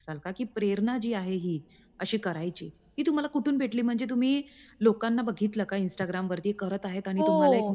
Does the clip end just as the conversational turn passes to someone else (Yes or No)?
Yes